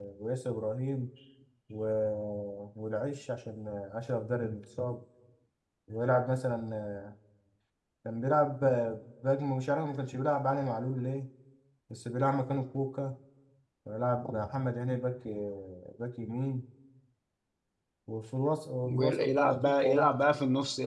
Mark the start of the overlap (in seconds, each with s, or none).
18.9 s